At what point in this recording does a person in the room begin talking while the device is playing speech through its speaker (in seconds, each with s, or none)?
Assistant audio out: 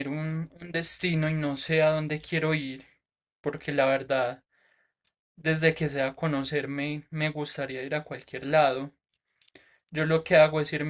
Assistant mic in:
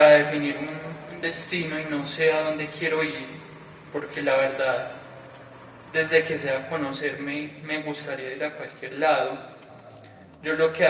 none